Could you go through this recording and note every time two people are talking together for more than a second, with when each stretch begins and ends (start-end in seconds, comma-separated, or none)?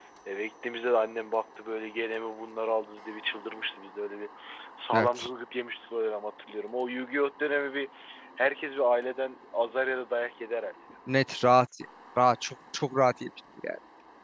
none